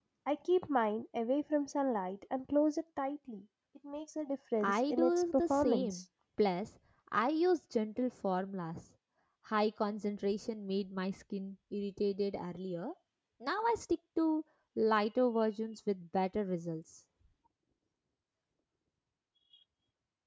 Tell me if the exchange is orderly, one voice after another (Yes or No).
No